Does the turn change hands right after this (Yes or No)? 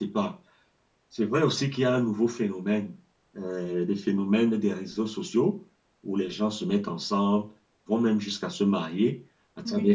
No